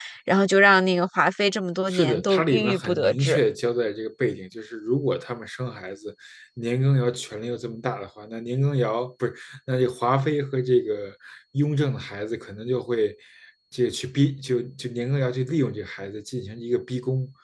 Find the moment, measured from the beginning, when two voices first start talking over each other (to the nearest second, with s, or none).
2 s